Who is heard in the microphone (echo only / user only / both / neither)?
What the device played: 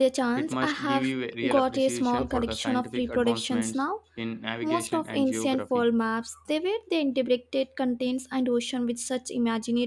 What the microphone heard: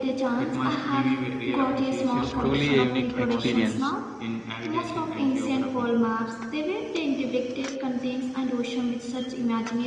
both